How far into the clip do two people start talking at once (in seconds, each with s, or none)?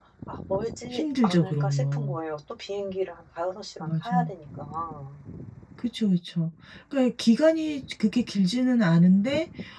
0.9 s